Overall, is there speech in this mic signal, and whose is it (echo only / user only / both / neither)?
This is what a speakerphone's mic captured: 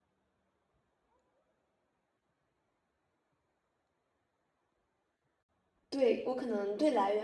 user only